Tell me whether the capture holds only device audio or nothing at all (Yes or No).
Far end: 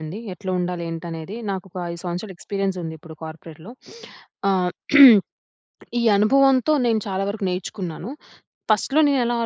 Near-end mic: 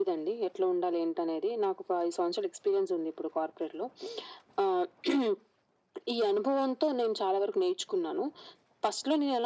Yes